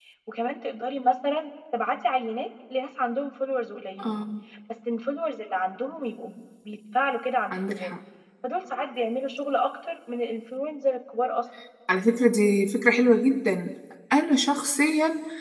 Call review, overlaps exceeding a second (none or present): none